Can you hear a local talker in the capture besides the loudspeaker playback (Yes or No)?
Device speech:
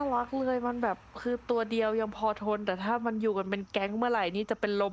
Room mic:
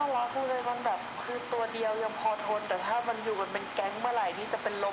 No